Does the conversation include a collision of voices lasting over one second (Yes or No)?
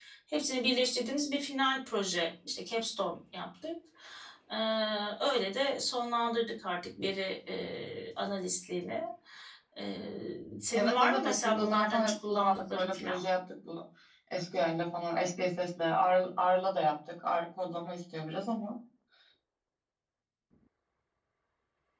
Yes